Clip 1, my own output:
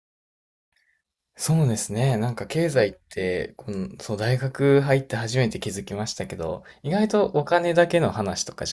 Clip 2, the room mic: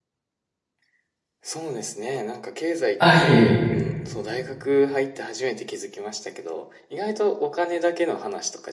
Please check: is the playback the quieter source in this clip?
Yes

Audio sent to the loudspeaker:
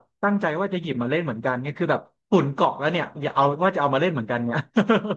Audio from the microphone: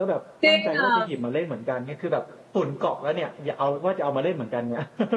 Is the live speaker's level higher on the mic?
Yes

